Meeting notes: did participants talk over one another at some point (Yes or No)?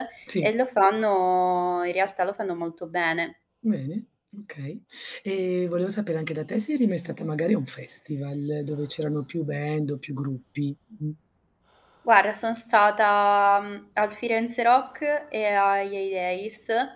No